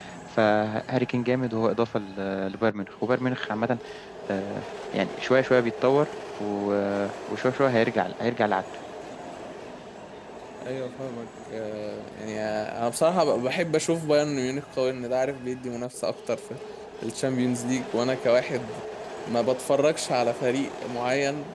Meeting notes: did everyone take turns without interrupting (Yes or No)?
Yes